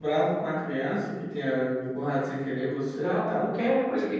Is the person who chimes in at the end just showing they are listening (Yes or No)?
No